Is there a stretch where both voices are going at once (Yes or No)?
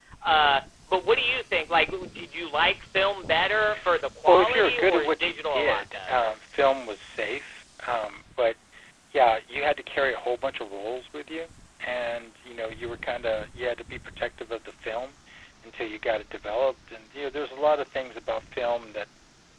Yes